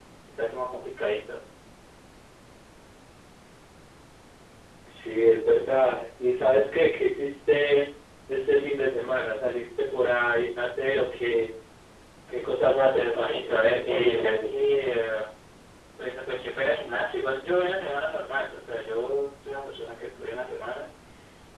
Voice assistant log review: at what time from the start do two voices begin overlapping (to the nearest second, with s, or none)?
13 s